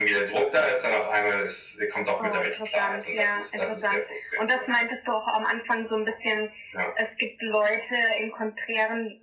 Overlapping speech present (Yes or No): Yes